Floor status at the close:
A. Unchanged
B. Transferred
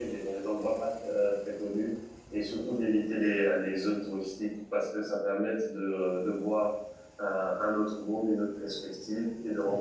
A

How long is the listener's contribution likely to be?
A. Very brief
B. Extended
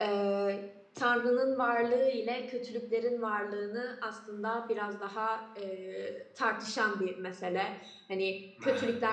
A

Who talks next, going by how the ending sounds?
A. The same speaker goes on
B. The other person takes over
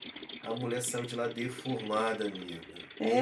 B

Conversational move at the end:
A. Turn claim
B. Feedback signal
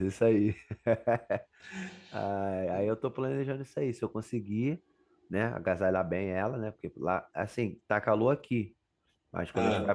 B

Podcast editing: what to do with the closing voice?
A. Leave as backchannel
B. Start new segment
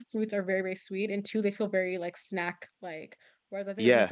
A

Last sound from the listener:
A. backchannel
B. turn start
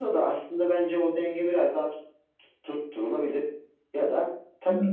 A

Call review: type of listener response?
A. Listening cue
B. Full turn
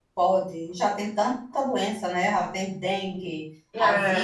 A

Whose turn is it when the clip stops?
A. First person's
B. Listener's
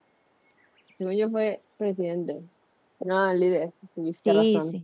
B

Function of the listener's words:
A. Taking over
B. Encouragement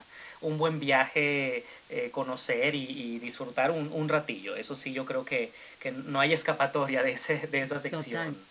A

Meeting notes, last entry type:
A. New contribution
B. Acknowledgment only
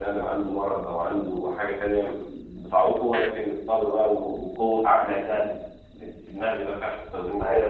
B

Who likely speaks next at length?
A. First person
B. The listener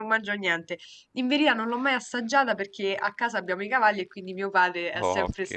A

